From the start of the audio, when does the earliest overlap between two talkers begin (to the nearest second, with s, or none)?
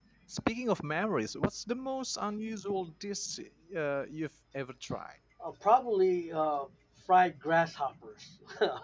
none